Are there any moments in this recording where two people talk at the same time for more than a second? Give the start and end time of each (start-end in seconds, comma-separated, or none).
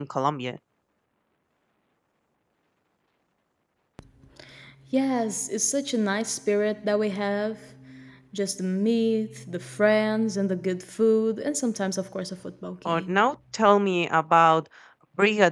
none